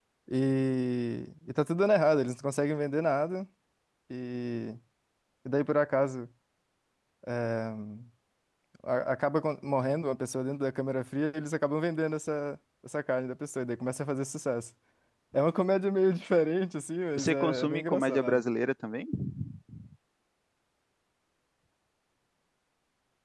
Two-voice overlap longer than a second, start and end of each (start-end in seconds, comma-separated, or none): 17.1-18.4